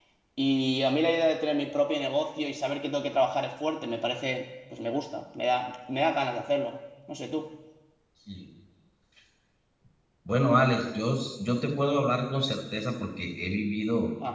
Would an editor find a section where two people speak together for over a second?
No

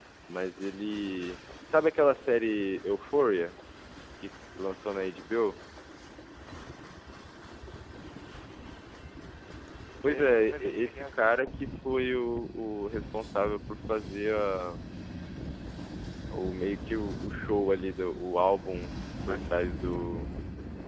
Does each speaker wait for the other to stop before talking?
No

